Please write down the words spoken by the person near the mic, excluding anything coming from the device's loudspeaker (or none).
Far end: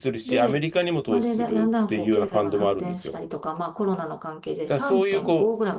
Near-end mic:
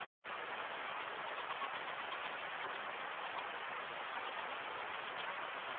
none